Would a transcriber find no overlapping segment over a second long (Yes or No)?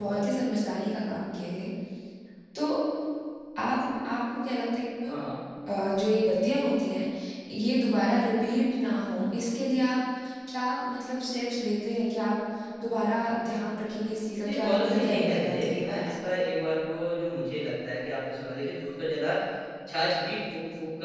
No